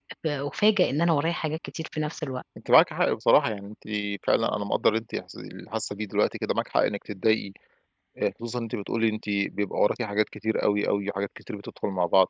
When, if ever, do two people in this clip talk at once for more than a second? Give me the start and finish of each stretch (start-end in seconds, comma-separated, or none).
none